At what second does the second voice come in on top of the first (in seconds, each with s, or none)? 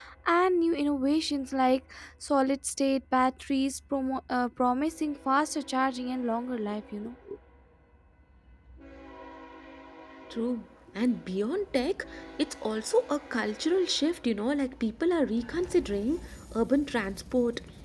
none